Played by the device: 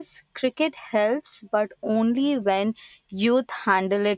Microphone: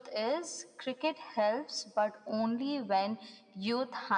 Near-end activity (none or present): none